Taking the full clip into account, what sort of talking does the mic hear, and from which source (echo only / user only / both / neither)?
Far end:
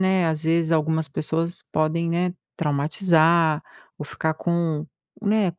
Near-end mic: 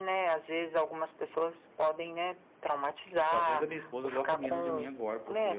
both